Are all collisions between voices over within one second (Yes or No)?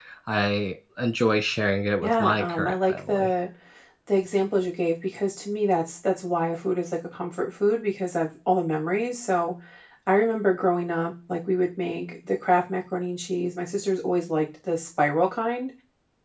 No